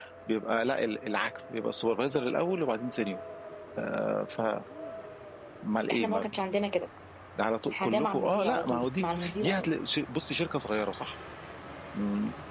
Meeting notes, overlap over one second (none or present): present